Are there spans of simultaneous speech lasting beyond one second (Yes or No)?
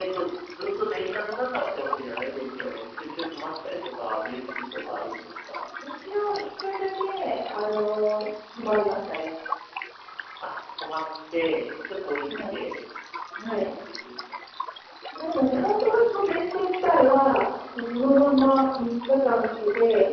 No